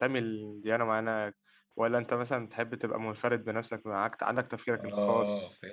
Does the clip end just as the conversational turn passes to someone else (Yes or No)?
Yes